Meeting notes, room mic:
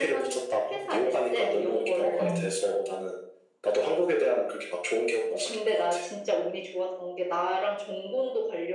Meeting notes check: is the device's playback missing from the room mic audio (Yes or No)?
No